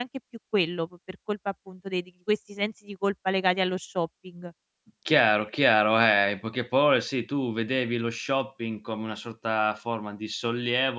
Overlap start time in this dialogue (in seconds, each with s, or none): none